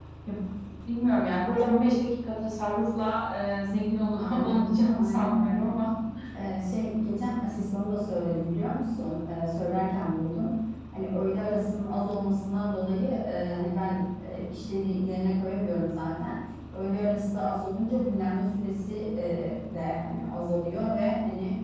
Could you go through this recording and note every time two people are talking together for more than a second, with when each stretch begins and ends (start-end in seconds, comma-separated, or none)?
4.1-5.7